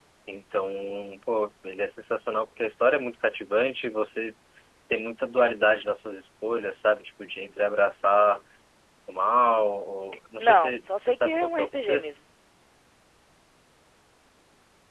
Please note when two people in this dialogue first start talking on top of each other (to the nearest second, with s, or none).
10 s